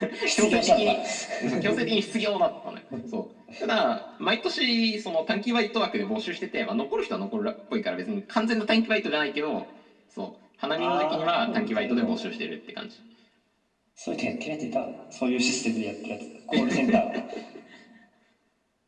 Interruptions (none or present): present